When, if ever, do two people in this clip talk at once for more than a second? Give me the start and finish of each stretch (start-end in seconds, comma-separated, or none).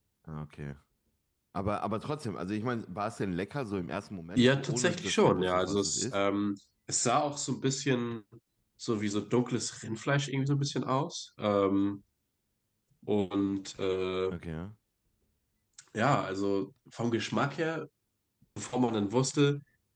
4.4-6.2